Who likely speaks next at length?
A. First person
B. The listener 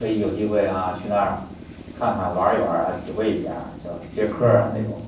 B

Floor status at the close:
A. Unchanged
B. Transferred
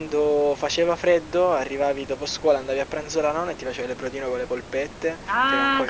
A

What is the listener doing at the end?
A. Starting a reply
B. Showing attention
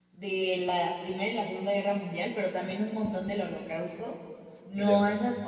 B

